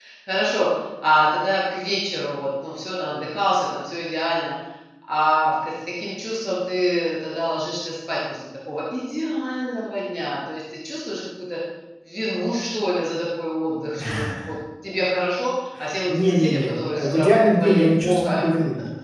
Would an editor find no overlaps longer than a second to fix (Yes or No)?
No